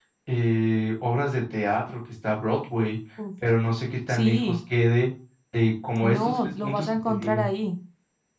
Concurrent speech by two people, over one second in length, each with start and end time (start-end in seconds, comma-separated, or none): 6.0-7.4